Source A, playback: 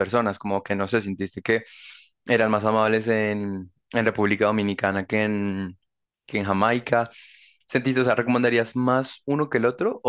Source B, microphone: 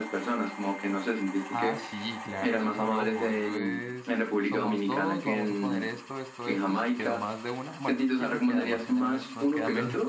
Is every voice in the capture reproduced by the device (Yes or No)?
No